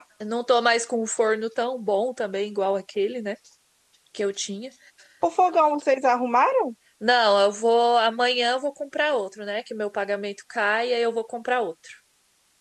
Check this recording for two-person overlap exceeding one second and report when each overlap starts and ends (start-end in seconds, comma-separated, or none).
none